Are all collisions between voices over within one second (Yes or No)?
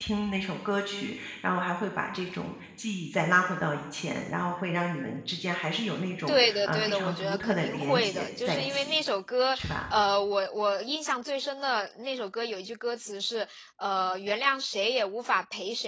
No